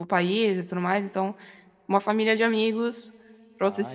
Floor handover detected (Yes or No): Yes